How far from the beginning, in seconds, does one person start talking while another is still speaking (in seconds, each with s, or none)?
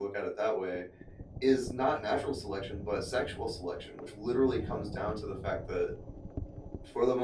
none